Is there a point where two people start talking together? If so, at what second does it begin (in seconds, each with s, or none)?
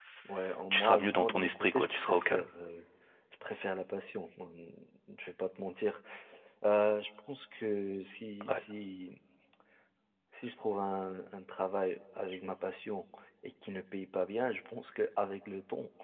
0.7 s